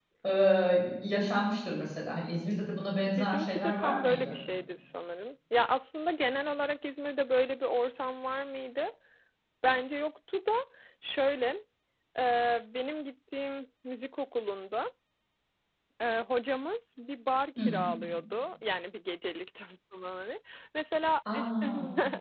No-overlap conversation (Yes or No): No